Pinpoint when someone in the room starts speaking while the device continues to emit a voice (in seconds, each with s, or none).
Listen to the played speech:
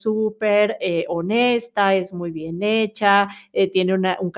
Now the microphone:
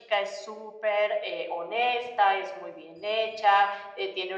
none